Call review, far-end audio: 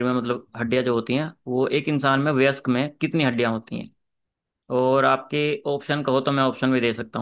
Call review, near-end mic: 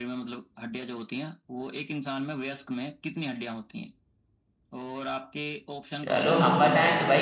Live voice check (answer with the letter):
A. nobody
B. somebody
B